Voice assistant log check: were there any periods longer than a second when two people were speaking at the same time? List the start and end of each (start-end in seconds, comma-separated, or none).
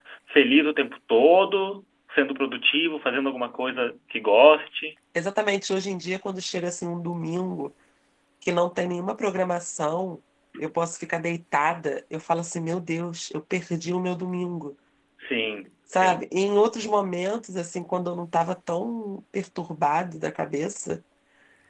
none